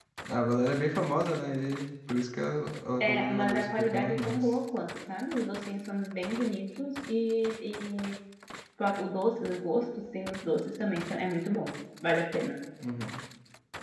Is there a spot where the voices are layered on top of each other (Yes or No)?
Yes